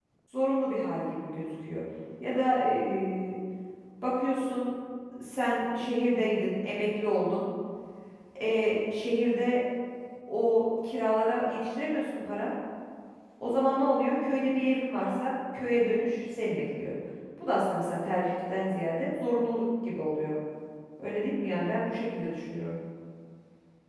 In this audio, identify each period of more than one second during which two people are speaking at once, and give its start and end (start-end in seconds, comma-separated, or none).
none